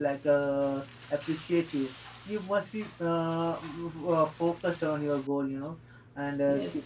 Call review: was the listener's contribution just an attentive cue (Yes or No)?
Yes